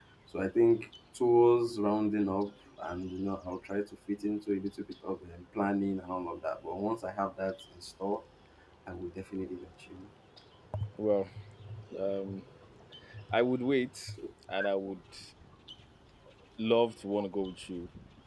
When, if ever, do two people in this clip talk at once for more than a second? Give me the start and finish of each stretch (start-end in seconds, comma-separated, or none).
none